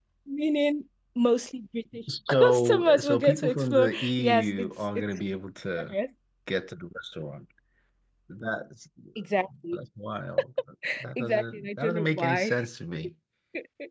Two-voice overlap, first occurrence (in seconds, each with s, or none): 2.3 s